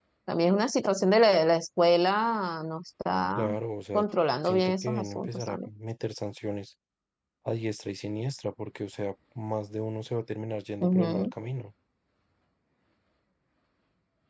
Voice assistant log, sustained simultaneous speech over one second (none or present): present